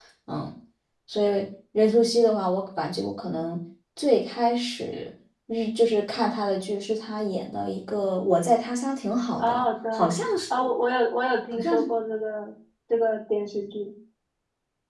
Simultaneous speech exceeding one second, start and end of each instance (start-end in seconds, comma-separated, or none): none